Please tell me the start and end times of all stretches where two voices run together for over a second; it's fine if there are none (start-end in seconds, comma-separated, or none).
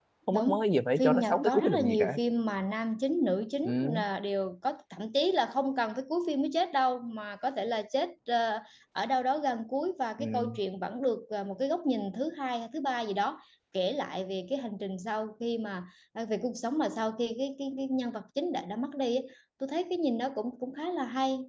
1.0-2.2